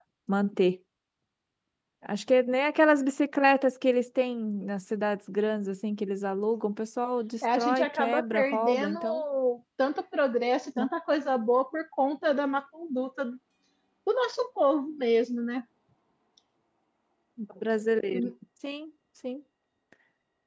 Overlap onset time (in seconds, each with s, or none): 7.6 s